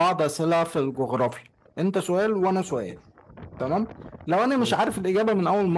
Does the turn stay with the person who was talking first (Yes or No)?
Yes